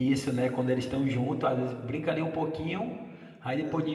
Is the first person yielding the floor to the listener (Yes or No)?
No